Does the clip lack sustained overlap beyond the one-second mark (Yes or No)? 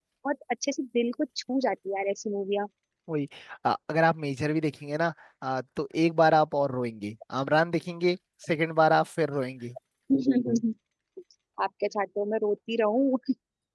Yes